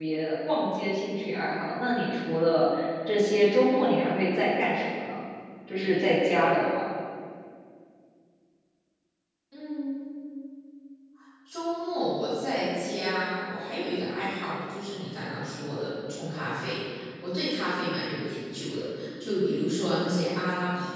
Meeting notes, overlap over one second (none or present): none